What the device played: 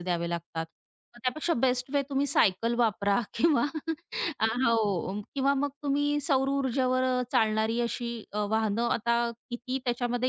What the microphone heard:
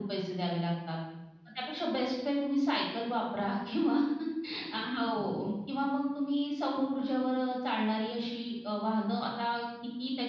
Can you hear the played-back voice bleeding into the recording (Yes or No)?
Yes